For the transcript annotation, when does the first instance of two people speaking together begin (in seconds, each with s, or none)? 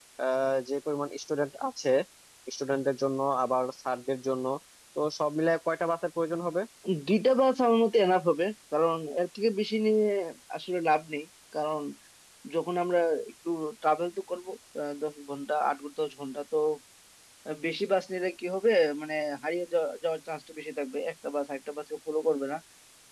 none